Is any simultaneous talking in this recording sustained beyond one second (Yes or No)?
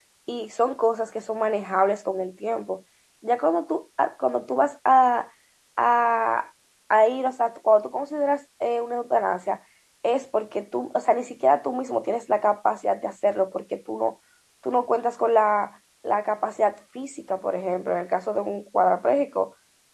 No